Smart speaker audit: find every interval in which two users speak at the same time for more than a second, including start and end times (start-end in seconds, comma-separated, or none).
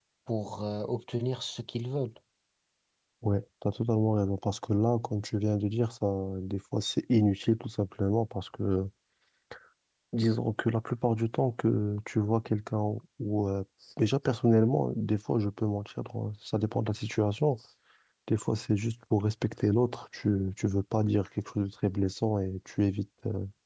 none